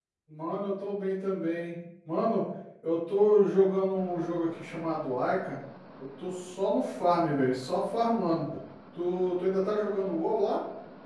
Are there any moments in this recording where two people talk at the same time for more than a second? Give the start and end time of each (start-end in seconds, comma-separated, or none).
none